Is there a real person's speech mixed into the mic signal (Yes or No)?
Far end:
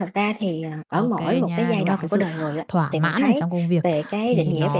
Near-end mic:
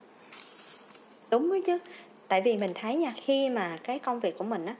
Yes